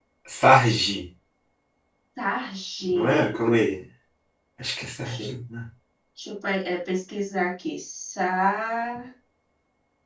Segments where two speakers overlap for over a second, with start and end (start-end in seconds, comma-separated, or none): none